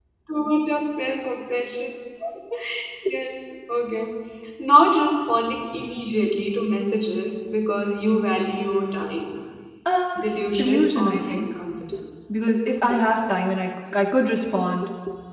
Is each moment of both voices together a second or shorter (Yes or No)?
No